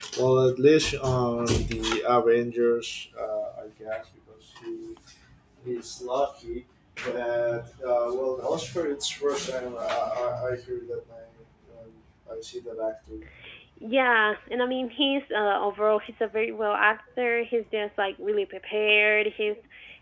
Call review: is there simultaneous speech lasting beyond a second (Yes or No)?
No